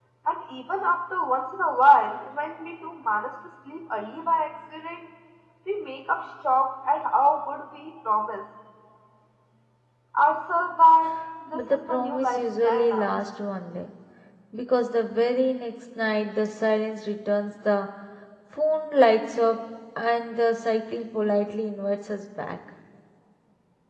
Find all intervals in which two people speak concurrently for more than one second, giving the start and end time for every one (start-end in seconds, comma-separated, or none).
11.5-13.1